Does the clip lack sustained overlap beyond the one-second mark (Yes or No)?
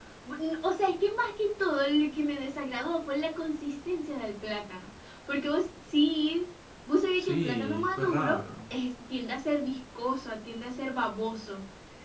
No